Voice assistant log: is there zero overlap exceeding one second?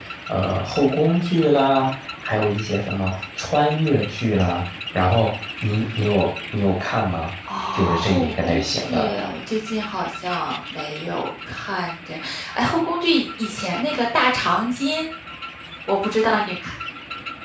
No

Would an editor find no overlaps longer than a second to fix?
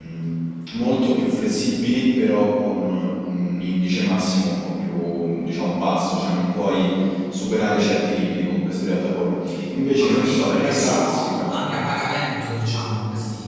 No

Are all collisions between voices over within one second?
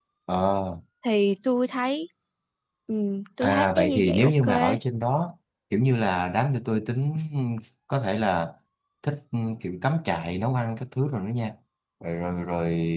No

